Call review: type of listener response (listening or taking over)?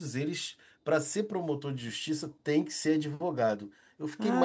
taking over